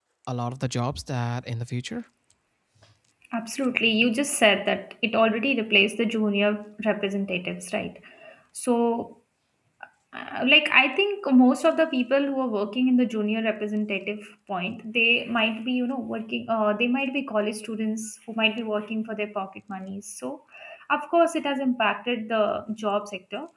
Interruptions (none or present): none